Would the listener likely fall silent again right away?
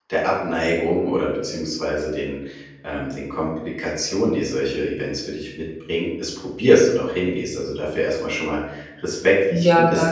Yes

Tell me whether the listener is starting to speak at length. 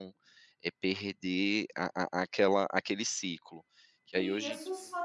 Yes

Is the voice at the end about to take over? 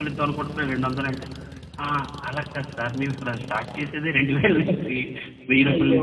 No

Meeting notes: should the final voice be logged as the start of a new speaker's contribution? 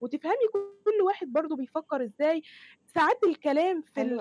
No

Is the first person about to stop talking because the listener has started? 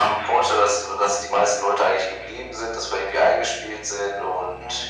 Yes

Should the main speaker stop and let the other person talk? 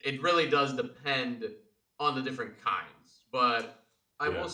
No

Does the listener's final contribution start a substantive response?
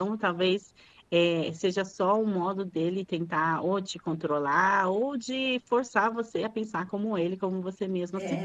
Yes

